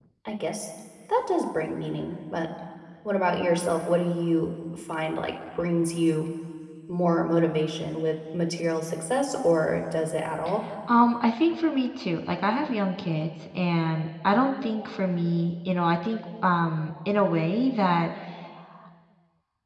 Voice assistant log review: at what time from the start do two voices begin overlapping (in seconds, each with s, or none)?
none